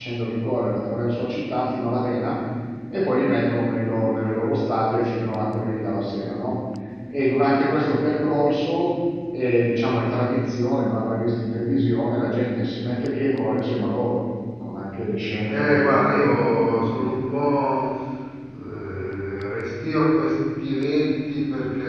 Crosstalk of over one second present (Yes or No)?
Yes